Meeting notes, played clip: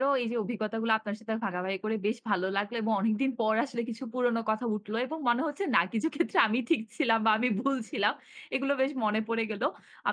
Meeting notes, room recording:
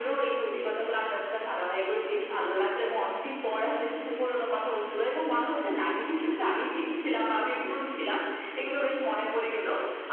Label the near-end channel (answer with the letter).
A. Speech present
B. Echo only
B